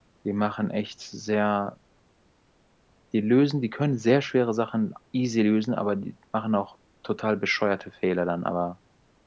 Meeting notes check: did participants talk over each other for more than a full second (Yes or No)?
No